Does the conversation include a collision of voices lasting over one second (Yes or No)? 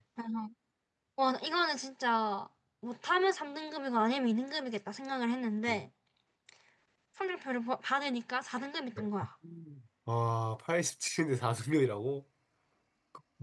No